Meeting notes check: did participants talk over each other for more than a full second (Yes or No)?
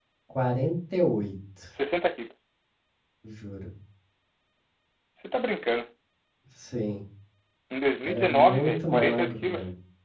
Yes